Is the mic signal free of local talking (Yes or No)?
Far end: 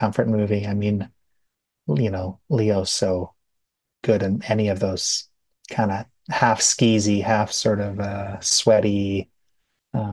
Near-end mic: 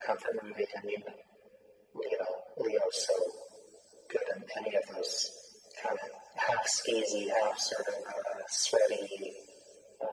Yes